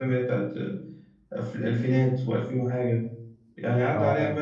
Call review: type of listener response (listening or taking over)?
listening